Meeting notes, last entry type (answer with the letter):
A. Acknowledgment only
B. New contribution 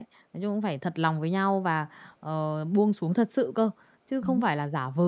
A